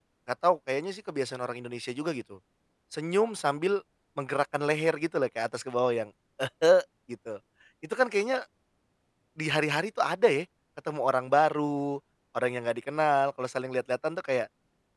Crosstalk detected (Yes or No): No